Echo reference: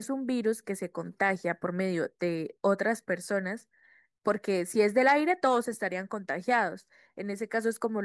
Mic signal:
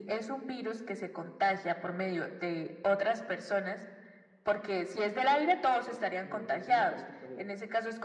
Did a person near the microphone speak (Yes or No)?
Yes